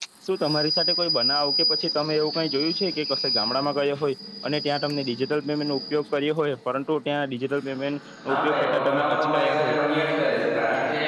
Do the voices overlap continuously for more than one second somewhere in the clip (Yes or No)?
Yes